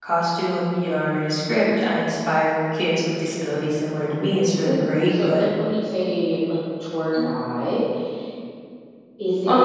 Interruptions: present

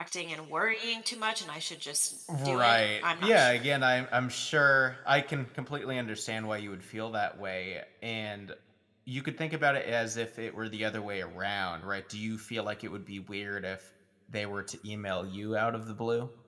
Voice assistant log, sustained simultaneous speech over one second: present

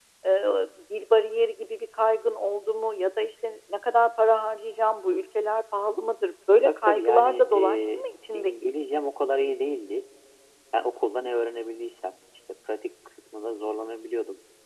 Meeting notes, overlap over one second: present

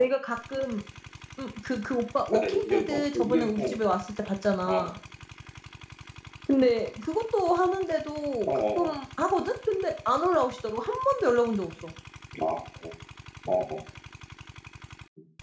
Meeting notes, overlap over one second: present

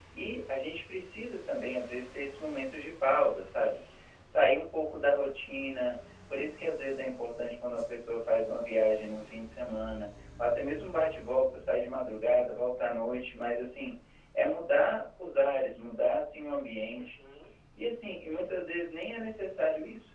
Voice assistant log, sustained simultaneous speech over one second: none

